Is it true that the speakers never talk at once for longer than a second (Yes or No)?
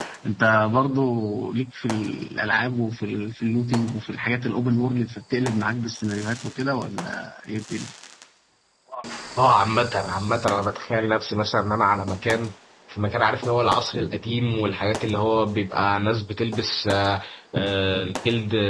Yes